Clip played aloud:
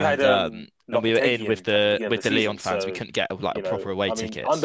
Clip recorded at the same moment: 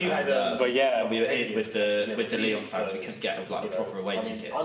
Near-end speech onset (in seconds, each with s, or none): 0.5 s